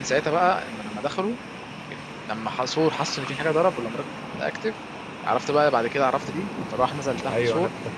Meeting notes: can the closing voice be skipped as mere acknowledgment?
No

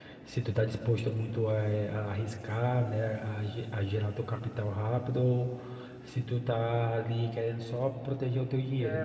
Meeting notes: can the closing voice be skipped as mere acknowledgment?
No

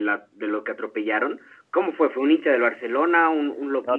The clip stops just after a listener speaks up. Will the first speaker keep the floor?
No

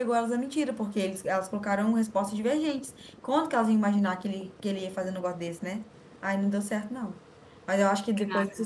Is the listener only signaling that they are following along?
Yes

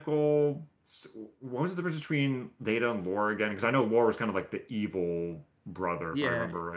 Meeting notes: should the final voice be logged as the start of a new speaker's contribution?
Yes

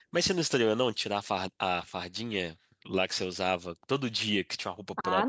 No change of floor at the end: No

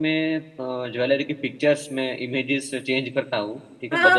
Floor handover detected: Yes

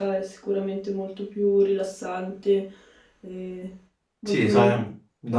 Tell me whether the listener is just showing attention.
No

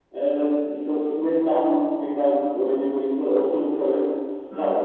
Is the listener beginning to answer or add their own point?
No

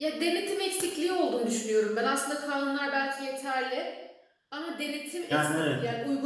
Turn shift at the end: No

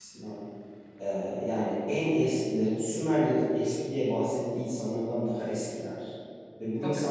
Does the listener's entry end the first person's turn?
No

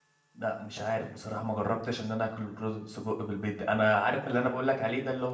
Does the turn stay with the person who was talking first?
Yes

